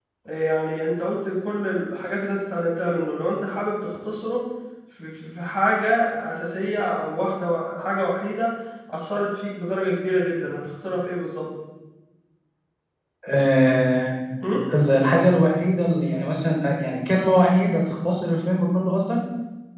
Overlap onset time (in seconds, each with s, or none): none